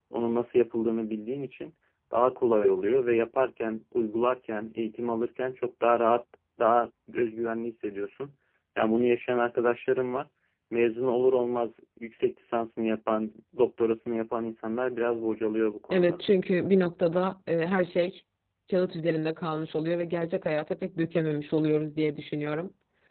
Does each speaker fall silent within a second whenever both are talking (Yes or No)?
Yes